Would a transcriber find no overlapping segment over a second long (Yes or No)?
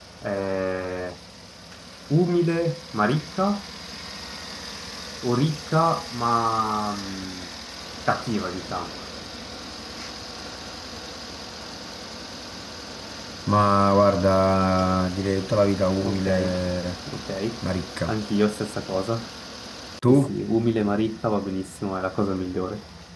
Yes